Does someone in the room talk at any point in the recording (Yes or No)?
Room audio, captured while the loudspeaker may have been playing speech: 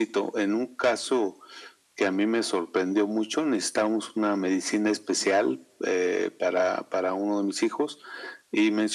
No